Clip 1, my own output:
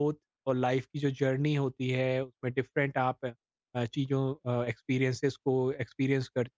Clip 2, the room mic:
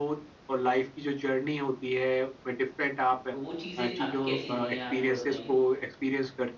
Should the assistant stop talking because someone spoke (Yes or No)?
Yes